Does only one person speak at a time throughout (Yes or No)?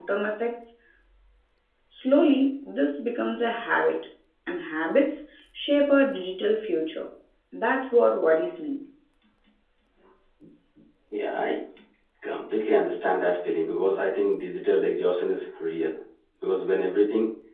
Yes